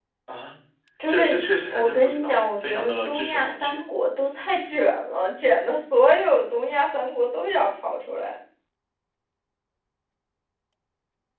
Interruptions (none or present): present